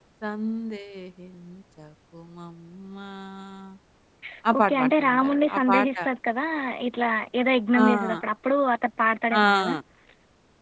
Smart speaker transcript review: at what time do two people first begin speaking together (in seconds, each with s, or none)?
4.6 s